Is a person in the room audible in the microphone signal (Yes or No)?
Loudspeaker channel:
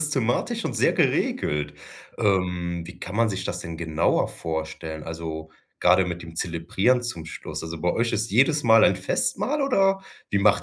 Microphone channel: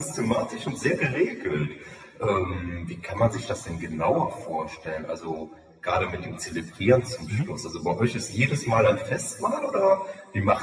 Yes